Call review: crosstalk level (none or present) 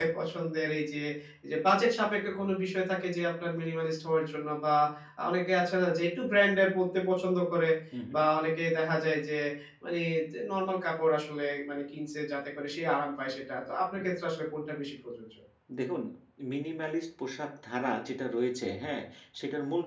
none